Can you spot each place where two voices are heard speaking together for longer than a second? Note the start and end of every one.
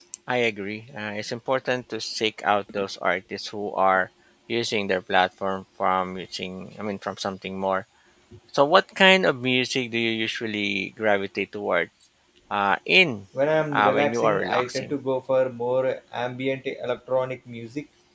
13.7-14.9

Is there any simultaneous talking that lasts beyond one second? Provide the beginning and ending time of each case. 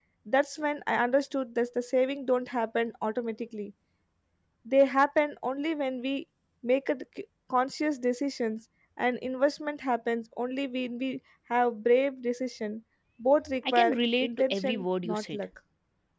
13.7-15.4

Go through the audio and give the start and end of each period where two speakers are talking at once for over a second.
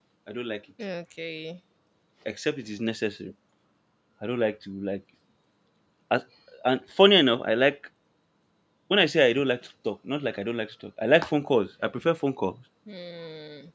none

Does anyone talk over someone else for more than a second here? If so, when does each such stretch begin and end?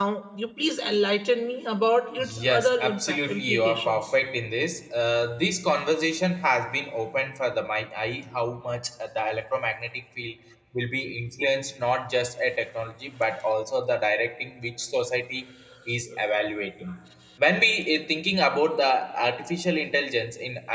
2.1-4.1

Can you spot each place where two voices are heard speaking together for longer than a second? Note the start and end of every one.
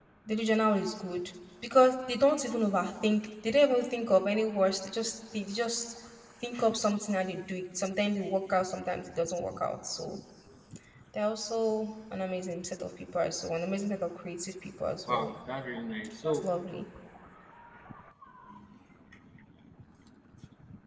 none

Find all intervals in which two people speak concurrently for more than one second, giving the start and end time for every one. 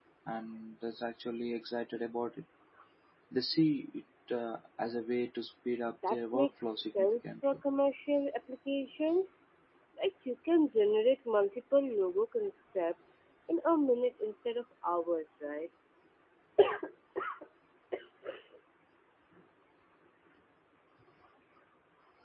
6.1-7.3

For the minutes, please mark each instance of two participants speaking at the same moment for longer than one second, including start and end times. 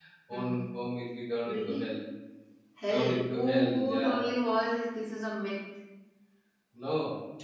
2.9-4.2

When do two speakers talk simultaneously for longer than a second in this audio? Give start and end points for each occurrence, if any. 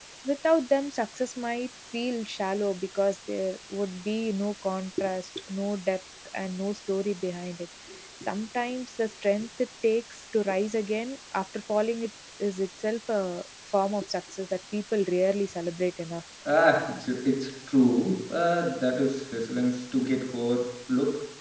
none

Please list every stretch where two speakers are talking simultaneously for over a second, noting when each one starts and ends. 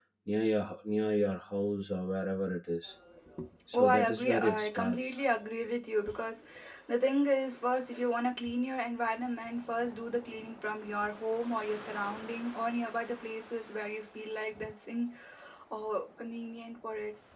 3.7-5.2

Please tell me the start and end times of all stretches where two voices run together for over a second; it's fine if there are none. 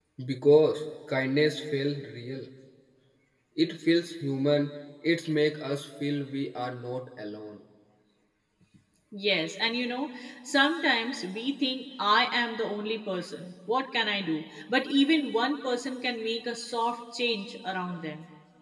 none

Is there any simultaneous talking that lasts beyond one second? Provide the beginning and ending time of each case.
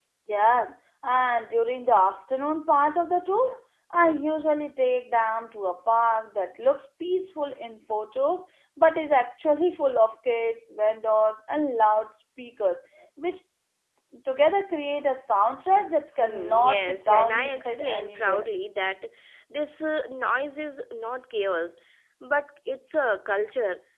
16.2-18.5

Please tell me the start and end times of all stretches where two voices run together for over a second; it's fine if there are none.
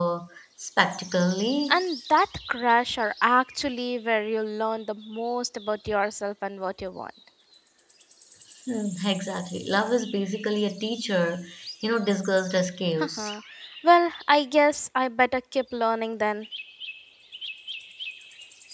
none

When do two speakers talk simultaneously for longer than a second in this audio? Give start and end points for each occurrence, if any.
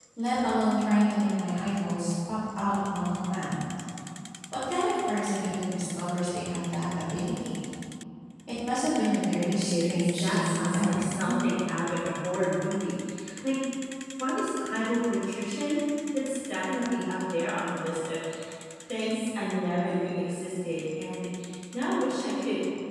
9.4-11.0

